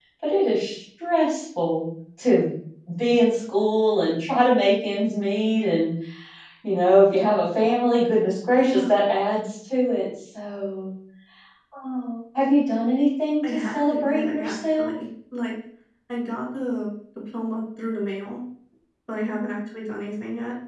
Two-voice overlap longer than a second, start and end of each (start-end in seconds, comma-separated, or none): 13.4-14.9